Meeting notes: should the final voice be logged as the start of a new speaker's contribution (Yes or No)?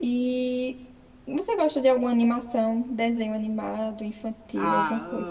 Yes